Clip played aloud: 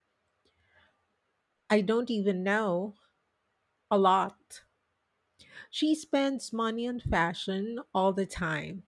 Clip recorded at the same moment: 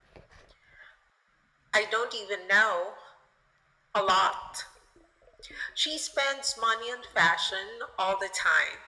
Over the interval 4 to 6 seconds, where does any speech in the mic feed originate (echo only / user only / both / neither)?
echo only